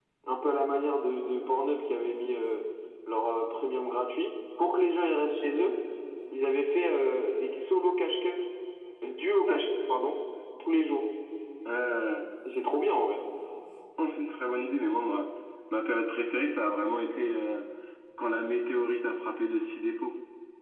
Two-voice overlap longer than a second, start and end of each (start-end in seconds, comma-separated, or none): none